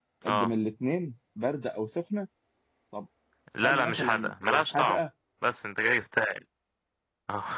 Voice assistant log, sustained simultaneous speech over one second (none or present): present